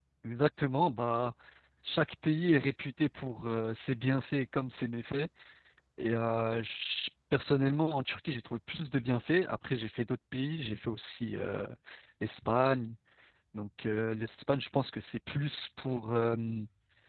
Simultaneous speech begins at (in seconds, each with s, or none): none